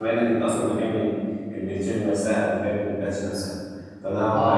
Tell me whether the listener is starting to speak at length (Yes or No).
Yes